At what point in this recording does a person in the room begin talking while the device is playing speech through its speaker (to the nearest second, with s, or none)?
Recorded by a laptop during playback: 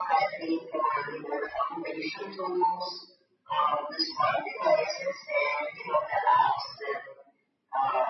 none